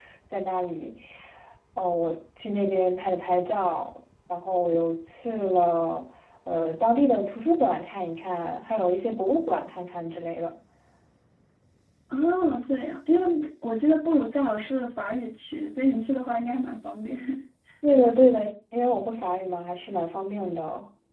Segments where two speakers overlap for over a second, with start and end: none

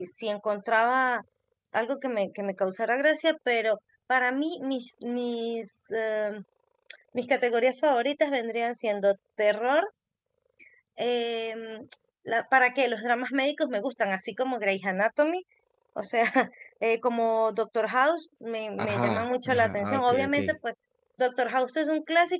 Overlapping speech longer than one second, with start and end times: 18.8-20.4

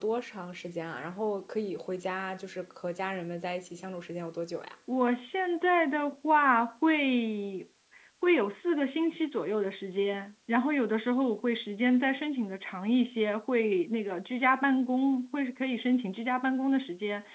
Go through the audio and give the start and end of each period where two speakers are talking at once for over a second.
none

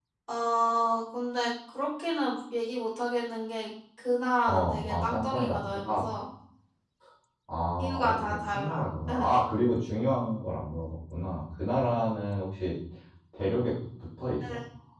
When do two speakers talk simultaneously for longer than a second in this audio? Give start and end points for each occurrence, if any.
4.5-6.0, 8.0-9.3

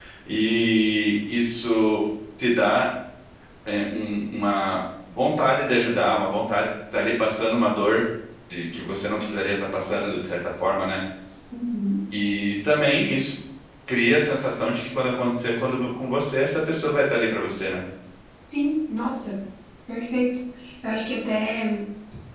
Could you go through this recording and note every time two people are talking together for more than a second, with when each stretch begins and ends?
none

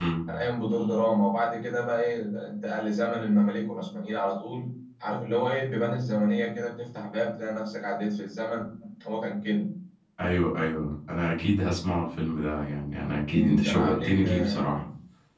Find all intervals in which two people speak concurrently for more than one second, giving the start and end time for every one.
13.3-14.8

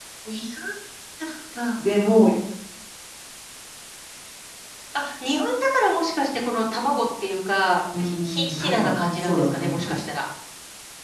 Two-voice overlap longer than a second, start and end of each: 8.0-10.0

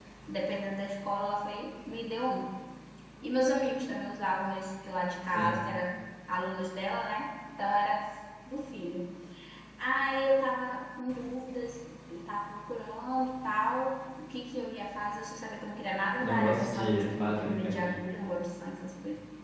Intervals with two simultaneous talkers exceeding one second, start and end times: 16.1-18.0

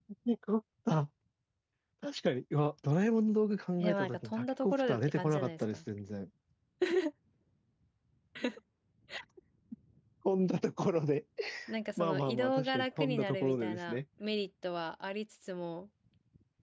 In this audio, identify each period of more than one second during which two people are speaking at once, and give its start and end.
3.8-5.8, 12.0-14.0

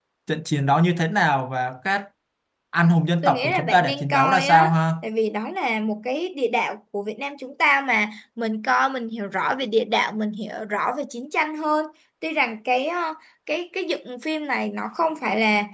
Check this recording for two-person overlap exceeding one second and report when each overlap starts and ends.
3.2-4.7

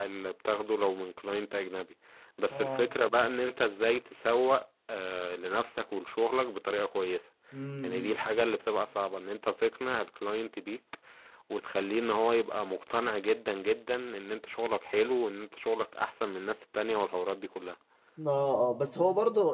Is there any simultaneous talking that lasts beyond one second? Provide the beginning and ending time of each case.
none

